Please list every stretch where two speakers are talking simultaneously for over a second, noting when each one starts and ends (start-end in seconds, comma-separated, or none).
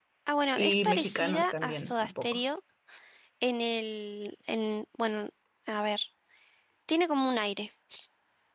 0.5-2.4